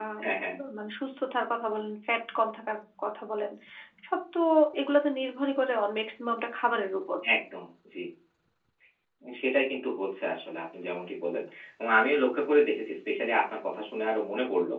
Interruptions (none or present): none